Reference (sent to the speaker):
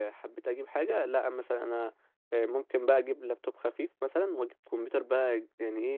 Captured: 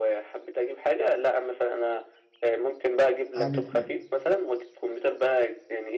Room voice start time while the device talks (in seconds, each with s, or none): 3.4 s